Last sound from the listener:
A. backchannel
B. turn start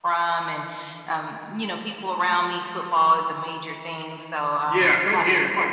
B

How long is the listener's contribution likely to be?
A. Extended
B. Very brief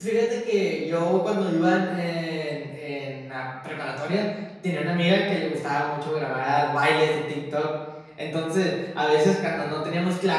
B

